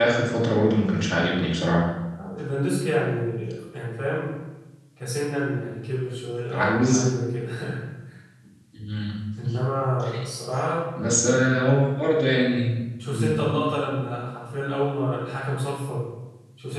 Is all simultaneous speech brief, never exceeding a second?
Yes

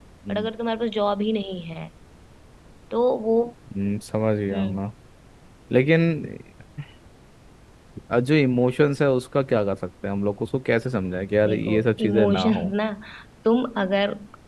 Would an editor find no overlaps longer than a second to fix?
No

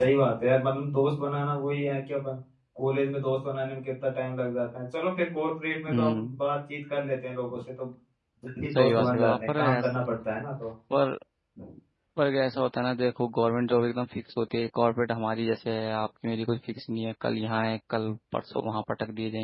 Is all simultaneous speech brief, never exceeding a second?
No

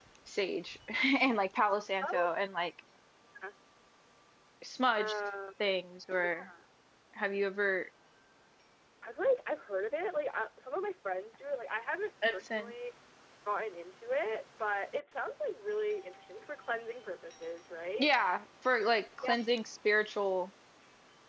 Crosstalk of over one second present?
No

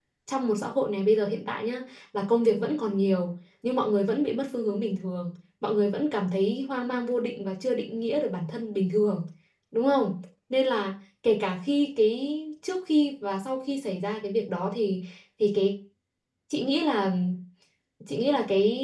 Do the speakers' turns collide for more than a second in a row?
No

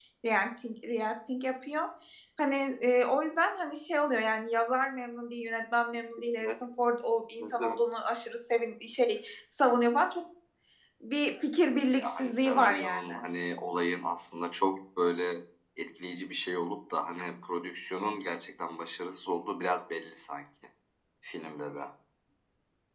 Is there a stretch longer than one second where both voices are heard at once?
Yes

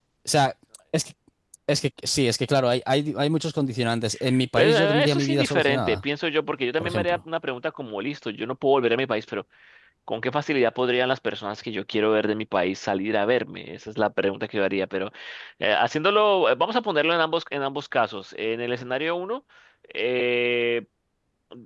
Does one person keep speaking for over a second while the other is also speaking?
Yes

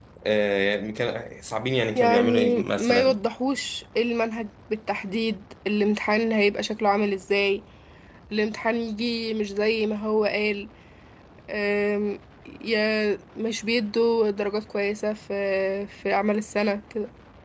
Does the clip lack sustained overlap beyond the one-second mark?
No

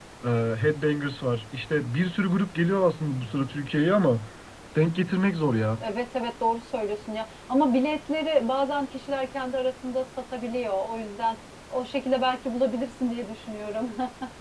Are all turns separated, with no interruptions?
Yes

